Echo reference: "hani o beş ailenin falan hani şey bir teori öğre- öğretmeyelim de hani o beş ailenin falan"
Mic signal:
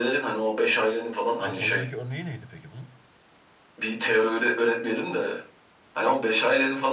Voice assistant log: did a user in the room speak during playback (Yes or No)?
Yes